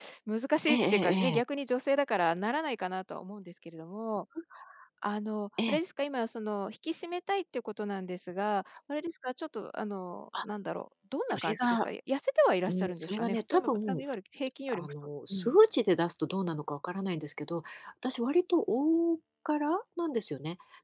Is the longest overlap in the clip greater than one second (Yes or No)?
Yes